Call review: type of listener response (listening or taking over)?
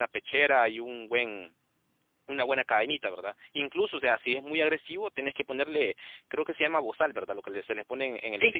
taking over